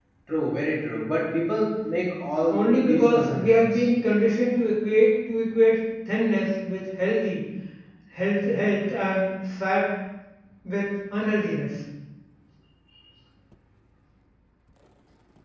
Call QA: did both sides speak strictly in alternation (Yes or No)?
No